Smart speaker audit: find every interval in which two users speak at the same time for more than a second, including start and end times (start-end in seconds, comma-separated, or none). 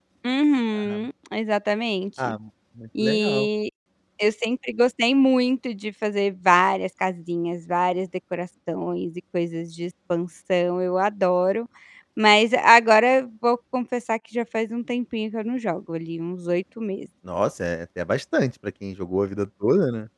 none